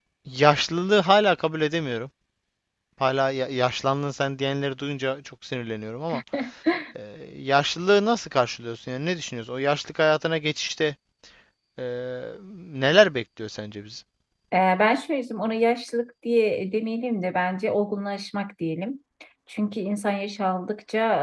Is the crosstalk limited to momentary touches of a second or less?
Yes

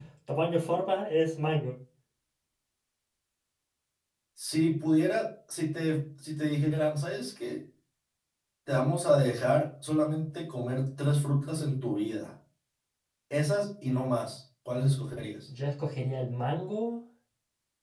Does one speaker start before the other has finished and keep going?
No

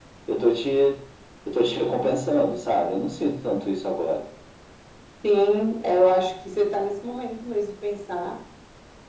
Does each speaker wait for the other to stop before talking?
Yes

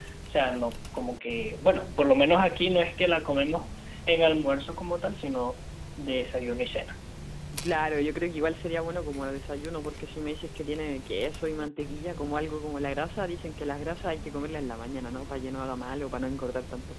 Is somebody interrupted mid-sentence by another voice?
No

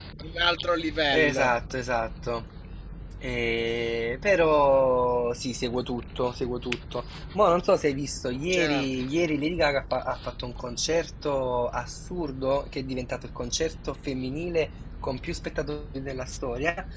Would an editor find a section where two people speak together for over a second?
No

